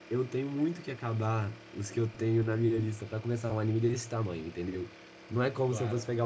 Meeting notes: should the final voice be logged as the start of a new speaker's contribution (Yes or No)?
No